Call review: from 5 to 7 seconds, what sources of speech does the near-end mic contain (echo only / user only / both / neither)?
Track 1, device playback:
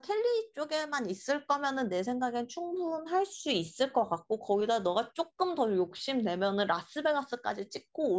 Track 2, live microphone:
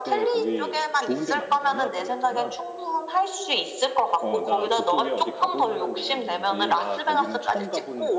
both